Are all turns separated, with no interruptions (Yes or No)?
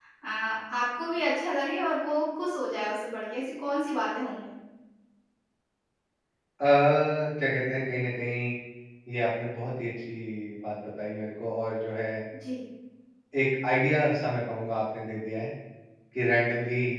Yes